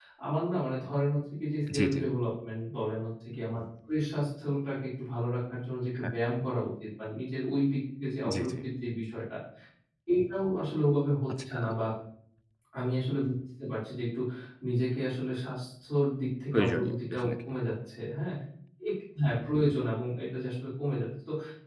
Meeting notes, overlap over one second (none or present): present